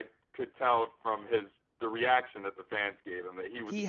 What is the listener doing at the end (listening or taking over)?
taking over